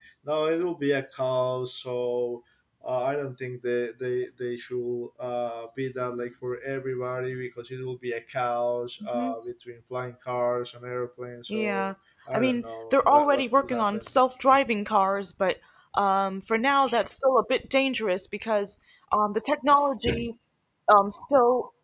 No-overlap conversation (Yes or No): No